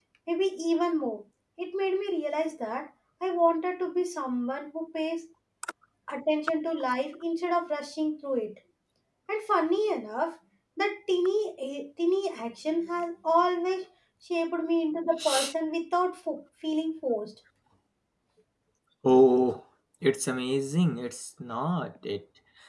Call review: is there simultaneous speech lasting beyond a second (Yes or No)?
No